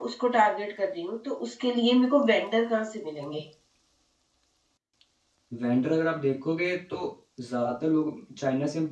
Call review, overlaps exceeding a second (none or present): none